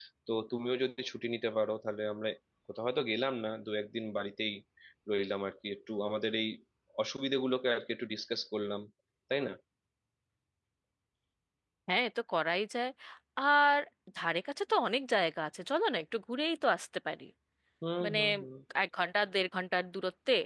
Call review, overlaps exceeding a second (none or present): none